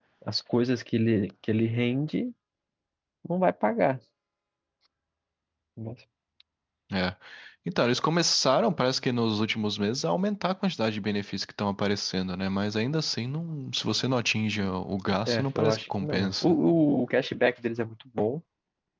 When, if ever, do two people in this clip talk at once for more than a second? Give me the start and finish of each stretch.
15.3-16.5

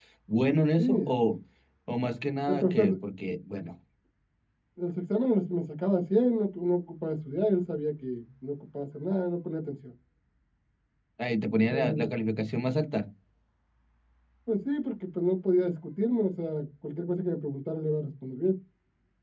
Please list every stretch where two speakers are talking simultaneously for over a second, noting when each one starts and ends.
none

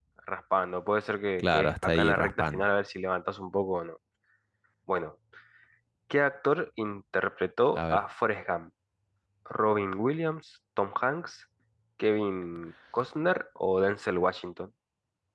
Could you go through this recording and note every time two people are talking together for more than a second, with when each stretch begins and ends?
1.4-2.6

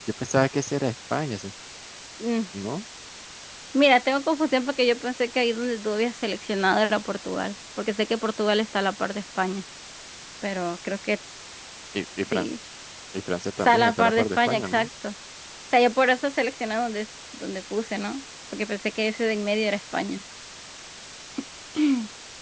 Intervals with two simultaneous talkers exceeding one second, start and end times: 13.7-14.9

